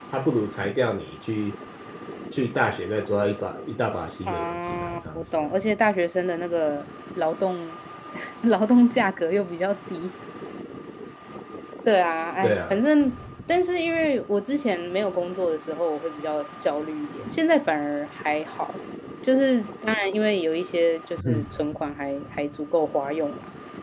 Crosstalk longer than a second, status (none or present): present